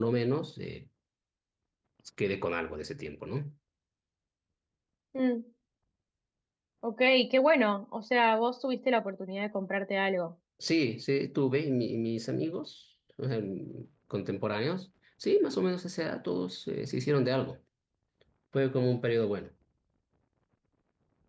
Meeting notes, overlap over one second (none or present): none